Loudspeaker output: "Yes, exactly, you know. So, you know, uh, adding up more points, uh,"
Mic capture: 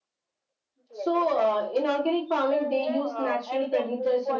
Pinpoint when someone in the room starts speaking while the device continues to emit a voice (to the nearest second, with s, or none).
1 s